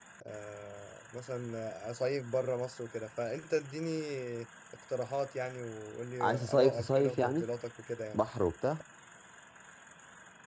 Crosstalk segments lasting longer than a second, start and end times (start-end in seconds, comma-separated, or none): 6.2-7.4